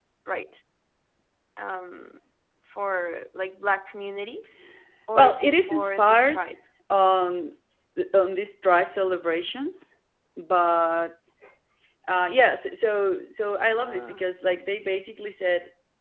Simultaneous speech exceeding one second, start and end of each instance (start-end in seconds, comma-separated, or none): 5.2-6.5